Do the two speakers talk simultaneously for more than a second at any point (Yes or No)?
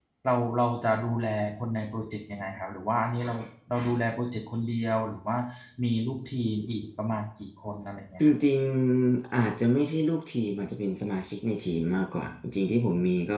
No